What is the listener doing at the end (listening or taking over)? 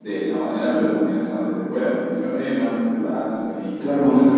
taking over